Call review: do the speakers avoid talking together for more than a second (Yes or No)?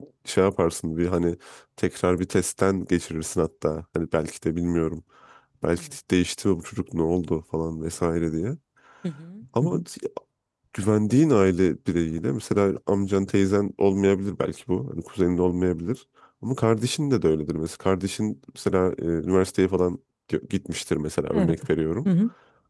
Yes